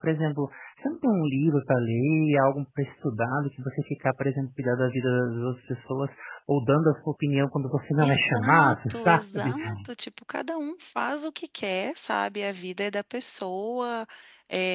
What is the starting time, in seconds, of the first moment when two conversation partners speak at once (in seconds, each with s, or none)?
8.0 s